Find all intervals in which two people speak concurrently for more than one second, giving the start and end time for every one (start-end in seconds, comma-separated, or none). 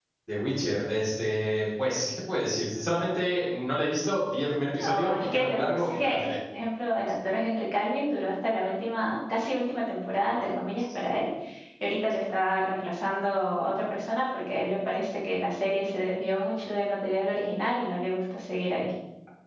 4.9-6.1